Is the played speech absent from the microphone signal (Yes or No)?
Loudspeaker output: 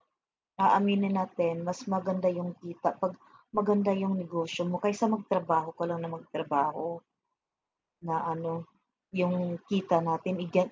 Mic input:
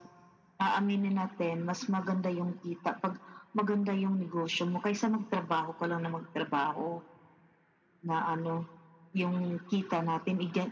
No